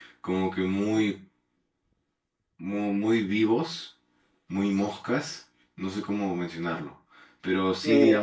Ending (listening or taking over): listening